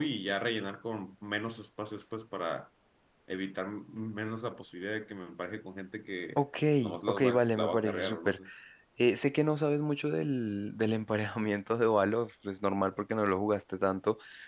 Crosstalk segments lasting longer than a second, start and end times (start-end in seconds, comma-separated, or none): 7.1-8.3